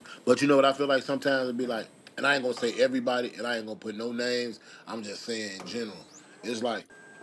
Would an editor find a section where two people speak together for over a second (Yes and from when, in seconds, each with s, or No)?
No